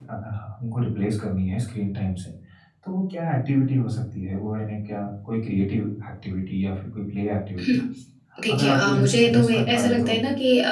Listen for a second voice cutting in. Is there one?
Yes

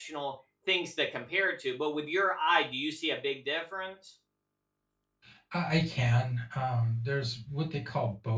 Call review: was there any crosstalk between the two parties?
No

